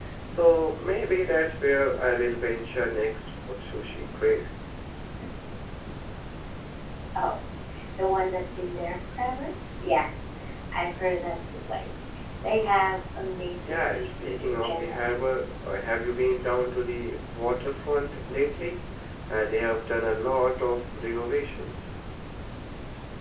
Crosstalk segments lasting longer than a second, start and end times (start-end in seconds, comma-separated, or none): 13.6-15.0